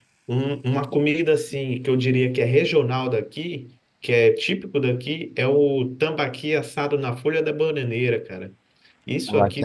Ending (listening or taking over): listening